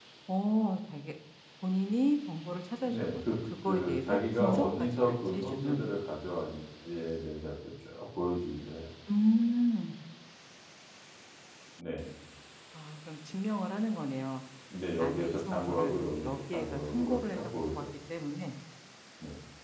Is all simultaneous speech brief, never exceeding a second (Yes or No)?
No